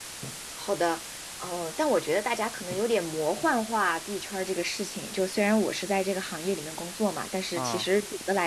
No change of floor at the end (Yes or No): Yes